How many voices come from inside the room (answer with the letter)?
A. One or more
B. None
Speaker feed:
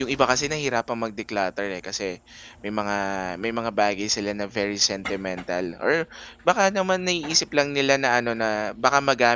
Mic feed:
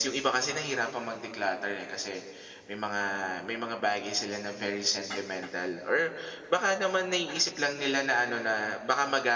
B